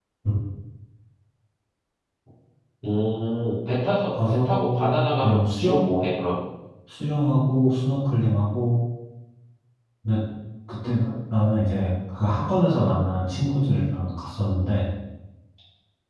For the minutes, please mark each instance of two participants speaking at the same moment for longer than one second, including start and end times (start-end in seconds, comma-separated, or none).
4.1-5.8